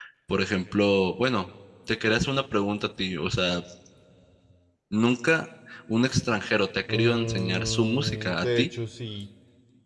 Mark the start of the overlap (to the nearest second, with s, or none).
7 s